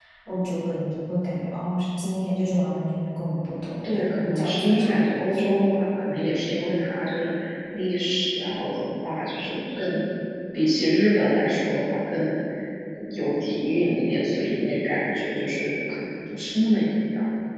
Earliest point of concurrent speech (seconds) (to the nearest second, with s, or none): 4 s